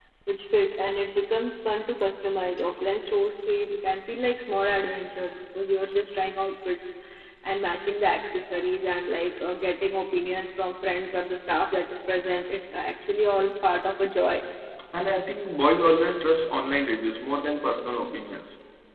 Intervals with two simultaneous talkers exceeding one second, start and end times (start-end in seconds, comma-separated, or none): none